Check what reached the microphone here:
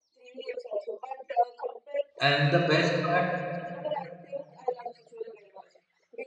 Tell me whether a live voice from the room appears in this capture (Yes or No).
Yes